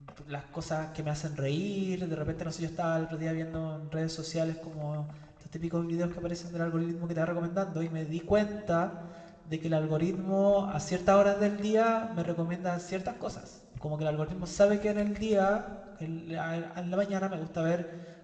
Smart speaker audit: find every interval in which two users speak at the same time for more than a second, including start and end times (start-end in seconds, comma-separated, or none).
none